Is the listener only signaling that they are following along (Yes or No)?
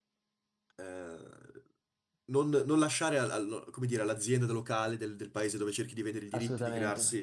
Yes